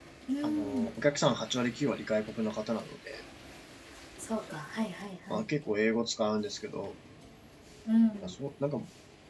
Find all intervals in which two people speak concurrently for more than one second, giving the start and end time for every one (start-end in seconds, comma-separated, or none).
none